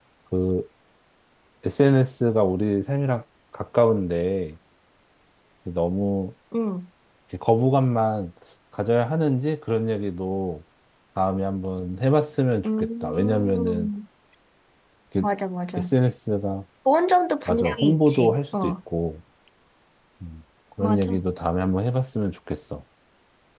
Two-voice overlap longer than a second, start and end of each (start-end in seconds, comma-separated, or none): 12.6-13.9, 17.5-18.7